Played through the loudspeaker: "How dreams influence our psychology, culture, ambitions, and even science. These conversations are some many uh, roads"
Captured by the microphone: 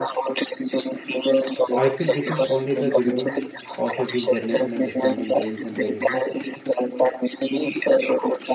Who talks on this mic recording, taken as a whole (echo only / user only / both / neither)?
both